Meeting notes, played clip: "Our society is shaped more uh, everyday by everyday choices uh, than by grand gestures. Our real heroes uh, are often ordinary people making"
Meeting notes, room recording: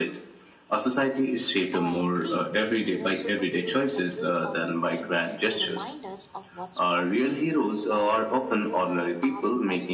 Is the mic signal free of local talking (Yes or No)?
No